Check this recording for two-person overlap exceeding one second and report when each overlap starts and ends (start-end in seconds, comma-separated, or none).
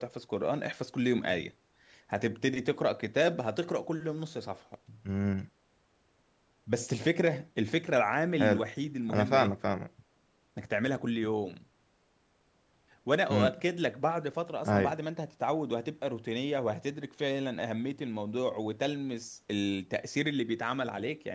none